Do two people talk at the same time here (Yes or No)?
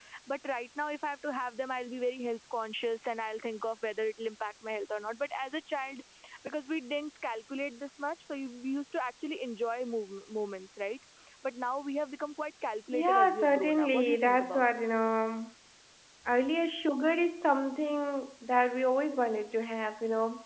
Yes